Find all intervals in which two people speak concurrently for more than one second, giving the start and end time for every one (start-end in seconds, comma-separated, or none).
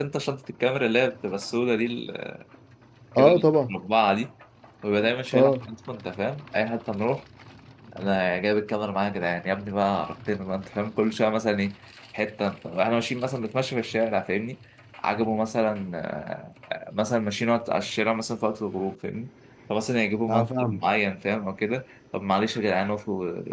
none